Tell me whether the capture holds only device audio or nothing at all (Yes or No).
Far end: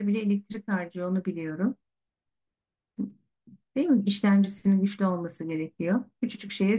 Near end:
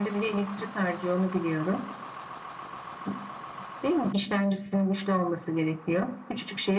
Yes